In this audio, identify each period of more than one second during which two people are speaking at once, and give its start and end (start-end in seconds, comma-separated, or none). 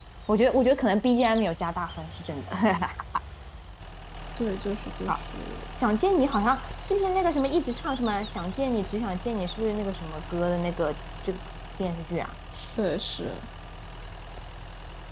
none